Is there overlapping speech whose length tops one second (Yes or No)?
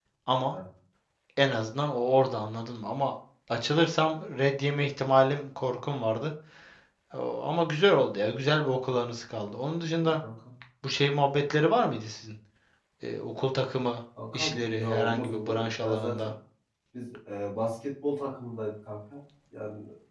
Yes